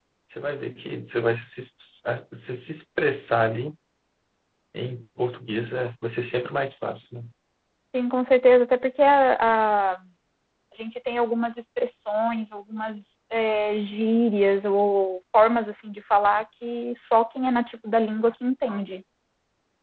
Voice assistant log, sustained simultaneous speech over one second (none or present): none